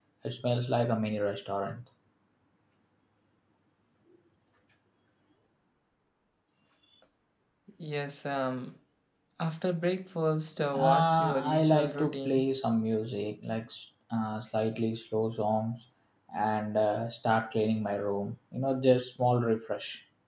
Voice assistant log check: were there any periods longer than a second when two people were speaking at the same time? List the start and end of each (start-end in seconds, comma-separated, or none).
10.7-12.4